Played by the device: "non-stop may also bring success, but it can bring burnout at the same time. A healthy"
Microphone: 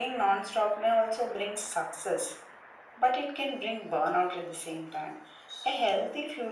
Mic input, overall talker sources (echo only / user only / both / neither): echo only